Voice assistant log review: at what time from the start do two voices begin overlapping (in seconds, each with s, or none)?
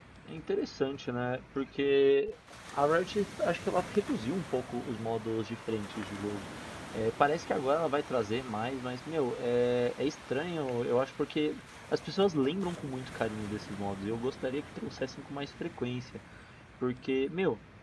none